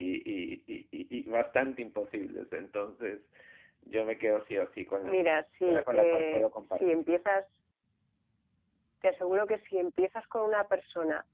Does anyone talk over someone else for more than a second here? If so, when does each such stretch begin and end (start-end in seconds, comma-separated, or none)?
5.0-7.0